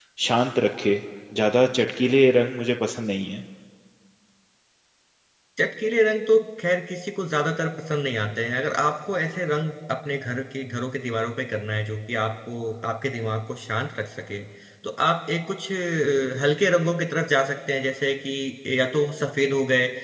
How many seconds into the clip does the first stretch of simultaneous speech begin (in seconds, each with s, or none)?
none